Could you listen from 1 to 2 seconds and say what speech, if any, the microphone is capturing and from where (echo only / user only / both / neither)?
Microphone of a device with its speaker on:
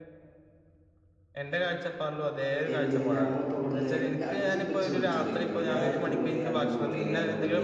echo only